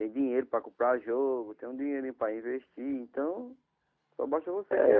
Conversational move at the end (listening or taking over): taking over